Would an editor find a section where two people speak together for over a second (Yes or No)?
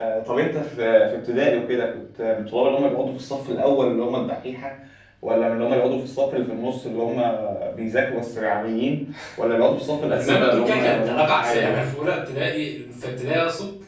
Yes